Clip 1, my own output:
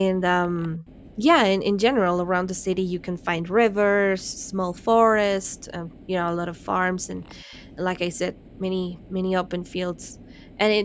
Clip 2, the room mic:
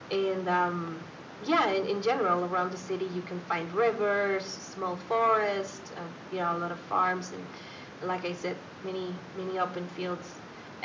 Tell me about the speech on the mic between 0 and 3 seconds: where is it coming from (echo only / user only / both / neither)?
echo only